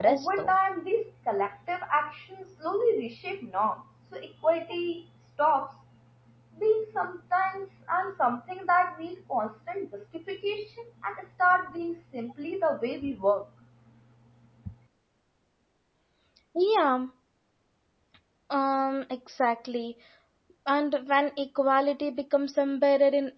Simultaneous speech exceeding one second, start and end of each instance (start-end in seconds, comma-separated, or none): none